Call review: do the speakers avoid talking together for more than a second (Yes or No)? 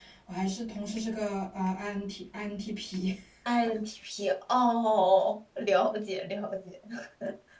Yes